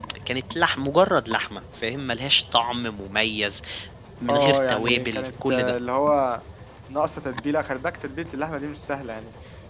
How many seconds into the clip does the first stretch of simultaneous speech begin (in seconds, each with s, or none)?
4.3 s